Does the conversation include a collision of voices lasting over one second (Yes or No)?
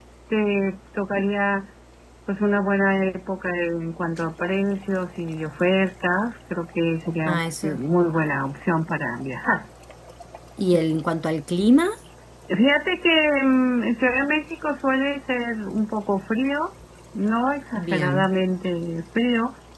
No